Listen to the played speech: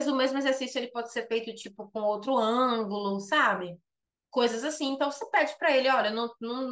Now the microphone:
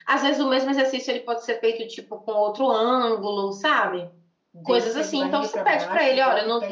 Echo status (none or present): present